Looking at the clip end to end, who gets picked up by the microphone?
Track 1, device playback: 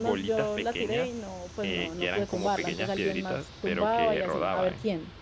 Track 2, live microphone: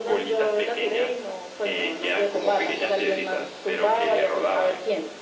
echo only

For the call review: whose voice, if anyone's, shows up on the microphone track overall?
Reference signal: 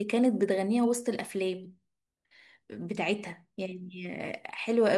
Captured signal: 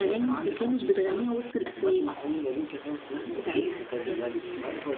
both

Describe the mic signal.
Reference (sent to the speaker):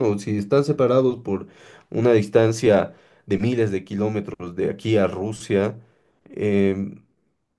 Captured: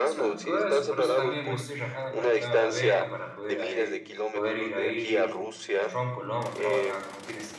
both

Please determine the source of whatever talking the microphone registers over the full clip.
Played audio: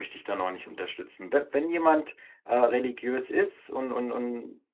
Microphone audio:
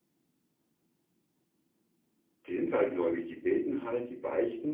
user only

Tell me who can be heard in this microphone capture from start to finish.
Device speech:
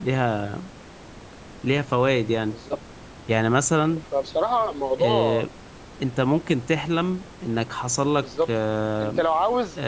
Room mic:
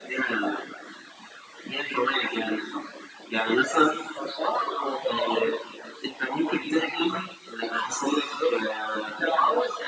echo only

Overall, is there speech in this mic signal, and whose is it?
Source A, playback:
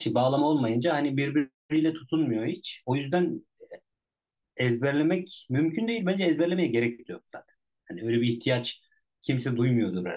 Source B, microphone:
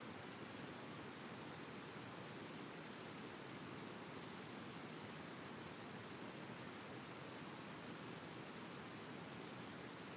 neither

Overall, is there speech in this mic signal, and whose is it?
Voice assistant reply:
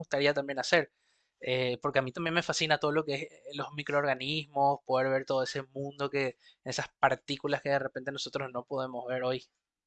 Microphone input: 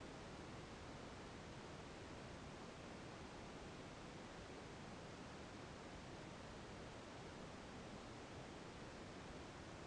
neither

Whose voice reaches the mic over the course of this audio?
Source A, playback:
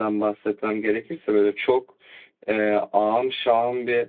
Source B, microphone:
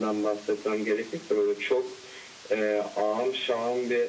echo only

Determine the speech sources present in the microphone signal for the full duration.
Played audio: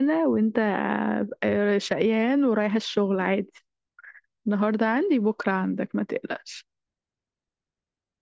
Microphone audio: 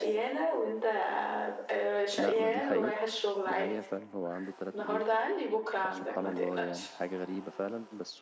both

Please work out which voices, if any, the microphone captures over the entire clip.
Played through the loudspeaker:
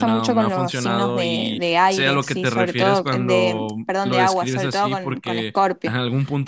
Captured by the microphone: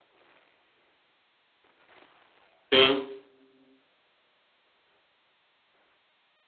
user only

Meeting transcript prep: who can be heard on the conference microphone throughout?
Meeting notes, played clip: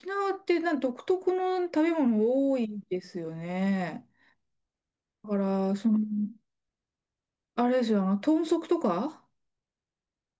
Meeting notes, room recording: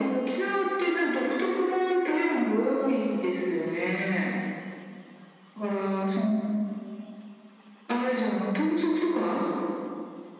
echo only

